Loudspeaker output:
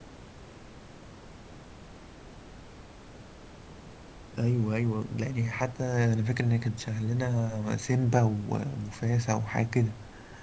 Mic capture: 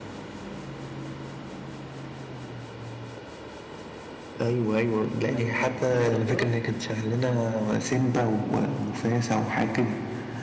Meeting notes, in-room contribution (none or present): present